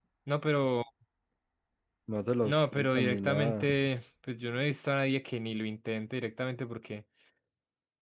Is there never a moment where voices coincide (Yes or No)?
No